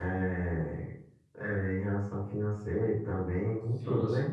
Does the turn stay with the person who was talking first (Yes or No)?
No